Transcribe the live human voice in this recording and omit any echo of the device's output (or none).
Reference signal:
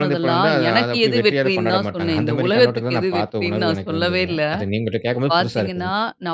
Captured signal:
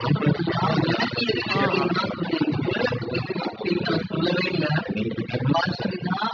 ஆ